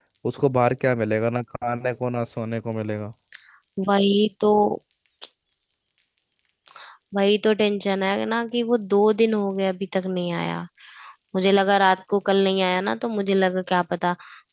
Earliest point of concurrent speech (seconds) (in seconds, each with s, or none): none